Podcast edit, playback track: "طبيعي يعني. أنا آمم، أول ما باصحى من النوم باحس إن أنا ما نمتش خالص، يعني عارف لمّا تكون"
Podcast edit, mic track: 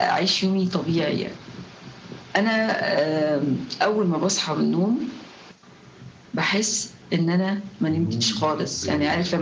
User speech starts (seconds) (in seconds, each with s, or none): 7.9 s